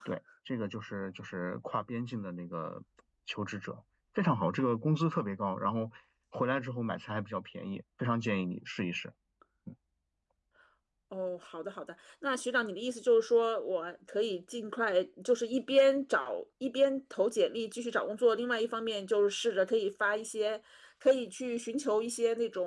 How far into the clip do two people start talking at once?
none

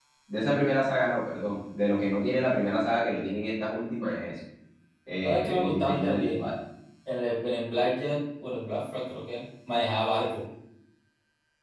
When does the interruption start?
5 s

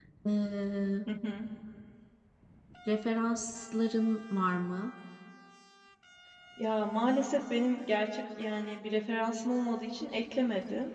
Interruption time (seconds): none

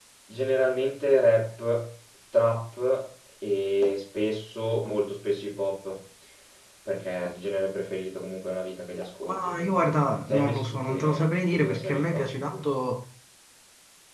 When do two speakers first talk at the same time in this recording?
9 s

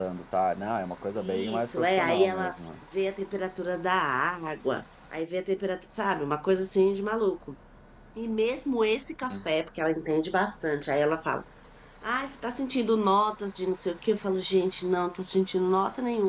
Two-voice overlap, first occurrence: 1 s

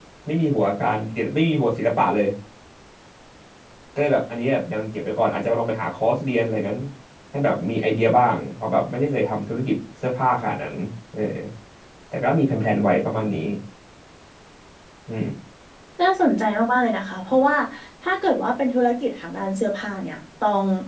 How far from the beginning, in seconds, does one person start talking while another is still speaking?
none

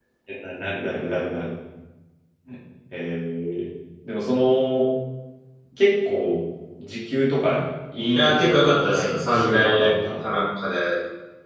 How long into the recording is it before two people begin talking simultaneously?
8 s

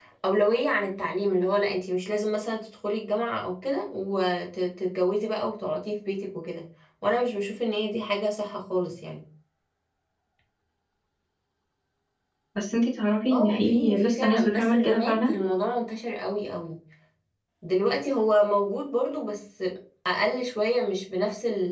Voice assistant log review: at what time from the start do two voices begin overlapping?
13 s

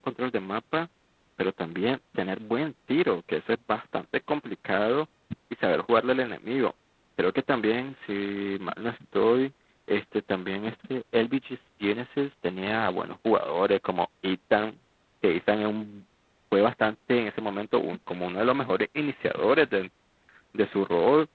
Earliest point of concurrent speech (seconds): none

